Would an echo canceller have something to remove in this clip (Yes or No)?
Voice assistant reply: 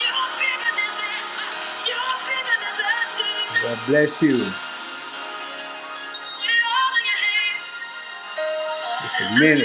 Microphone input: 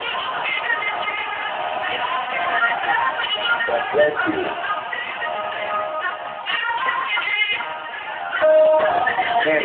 Yes